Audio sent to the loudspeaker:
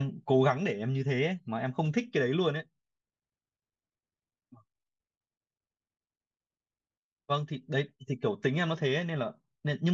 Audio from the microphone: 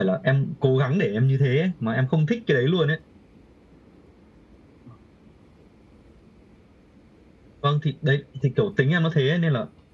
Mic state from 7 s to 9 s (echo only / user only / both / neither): echo only